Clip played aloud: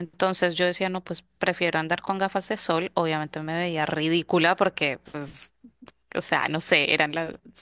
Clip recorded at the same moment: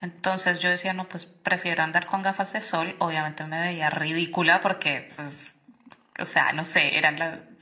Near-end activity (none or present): none